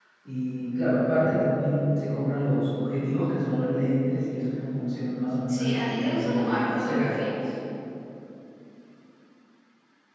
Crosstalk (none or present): present